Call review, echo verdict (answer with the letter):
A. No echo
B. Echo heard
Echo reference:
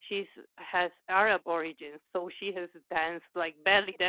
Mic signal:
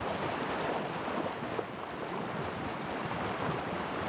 A